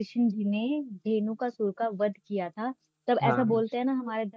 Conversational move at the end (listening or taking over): listening